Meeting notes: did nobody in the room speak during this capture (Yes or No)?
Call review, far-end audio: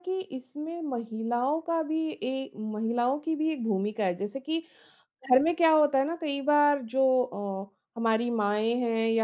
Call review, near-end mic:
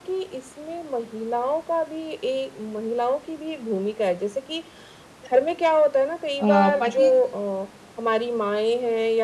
No